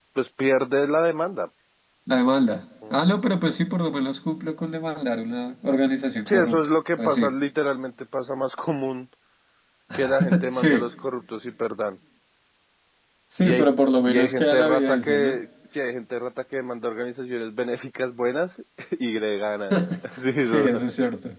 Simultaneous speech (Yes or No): Yes